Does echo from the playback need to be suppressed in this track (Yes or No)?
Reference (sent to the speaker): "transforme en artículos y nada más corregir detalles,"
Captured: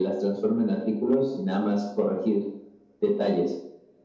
Yes